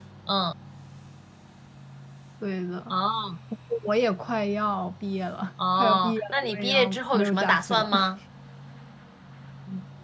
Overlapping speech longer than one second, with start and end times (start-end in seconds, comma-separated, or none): 5.7-7.9